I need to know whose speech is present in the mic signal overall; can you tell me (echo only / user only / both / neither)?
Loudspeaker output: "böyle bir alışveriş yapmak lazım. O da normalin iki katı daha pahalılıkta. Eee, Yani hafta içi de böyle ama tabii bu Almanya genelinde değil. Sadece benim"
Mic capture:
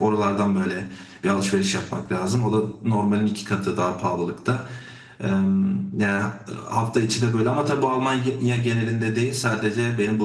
echo only